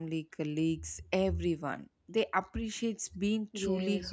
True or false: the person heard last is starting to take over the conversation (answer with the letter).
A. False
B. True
B